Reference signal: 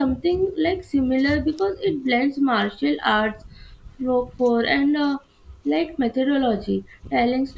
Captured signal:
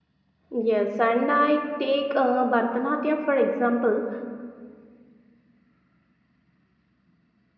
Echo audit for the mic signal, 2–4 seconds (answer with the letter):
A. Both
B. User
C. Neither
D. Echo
B